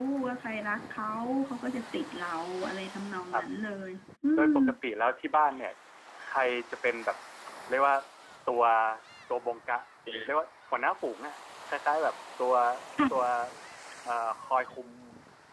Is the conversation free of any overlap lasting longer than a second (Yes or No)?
Yes